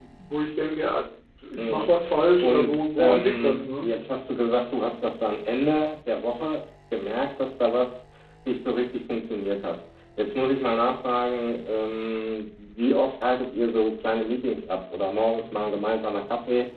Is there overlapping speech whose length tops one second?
Yes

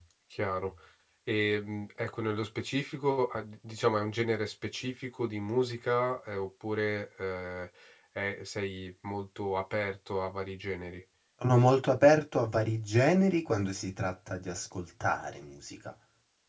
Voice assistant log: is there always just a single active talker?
Yes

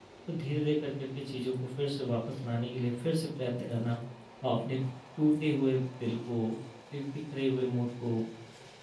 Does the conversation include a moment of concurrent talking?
No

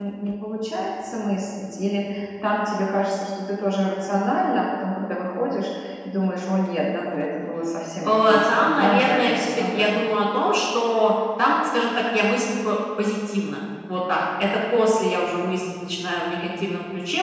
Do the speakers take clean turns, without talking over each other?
No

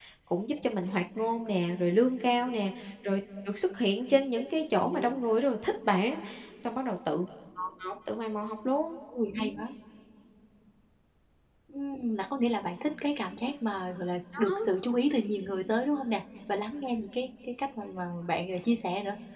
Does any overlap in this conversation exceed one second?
No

